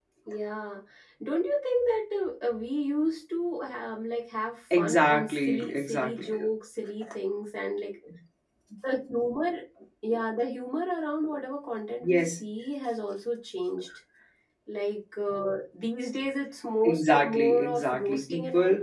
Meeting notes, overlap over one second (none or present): present